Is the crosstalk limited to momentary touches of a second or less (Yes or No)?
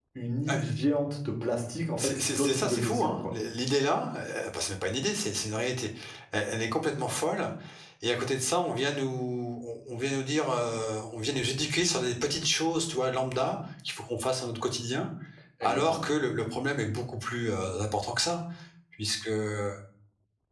No